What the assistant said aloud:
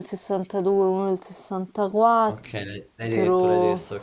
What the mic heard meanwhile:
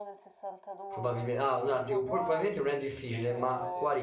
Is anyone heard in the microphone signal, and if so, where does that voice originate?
both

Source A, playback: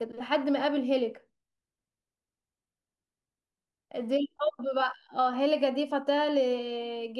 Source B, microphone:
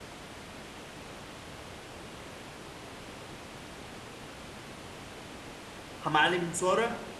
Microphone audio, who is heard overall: user only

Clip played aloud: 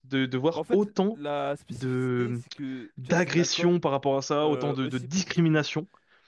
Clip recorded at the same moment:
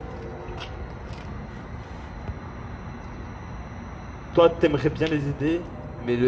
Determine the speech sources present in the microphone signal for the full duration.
user only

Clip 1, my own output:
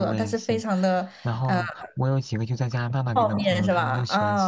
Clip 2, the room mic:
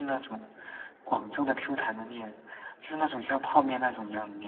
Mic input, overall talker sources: user only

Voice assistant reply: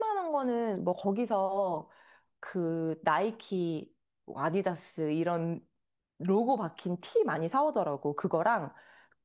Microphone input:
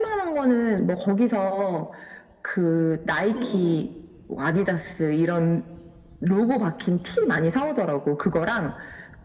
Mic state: both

